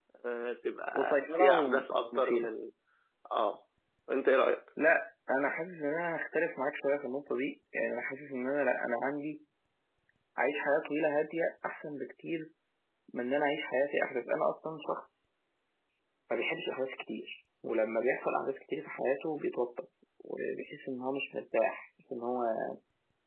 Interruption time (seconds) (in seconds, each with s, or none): 1.0 s